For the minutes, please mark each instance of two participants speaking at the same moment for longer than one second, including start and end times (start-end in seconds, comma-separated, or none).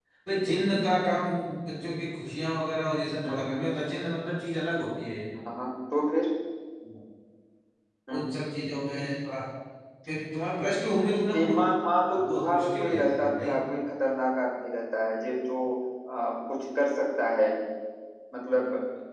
12.2-13.5